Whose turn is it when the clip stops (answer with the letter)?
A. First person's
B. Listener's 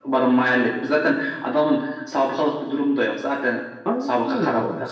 B